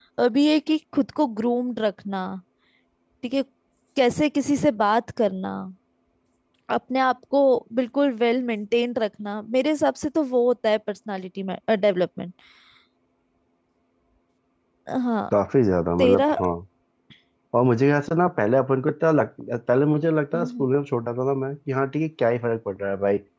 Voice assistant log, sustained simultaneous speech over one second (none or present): none